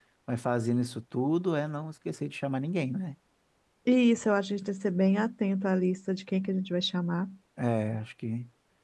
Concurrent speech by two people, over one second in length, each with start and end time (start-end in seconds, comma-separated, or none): none